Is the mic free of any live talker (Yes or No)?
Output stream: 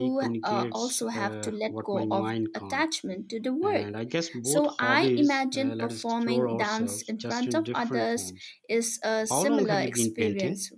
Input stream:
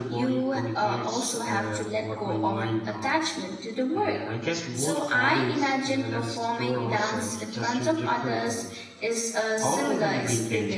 Yes